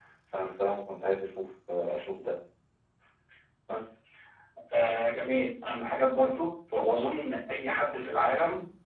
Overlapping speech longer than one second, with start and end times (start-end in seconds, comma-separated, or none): none